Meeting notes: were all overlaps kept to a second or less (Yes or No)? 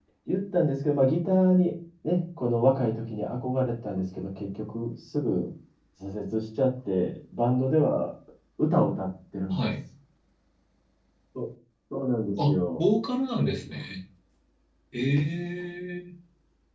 Yes